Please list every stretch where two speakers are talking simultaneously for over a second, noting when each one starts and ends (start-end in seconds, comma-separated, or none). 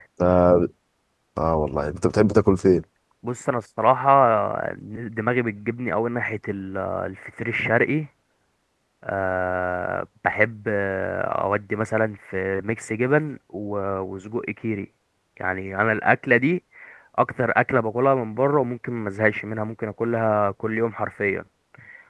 none